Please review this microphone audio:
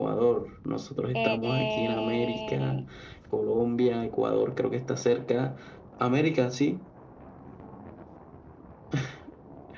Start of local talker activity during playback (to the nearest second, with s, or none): 1 s